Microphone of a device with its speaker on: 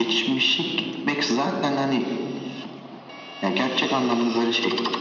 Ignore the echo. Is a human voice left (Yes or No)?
No